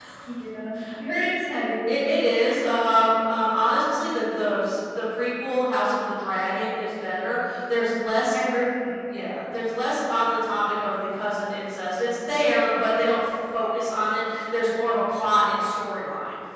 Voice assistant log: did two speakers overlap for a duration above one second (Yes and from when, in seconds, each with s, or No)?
No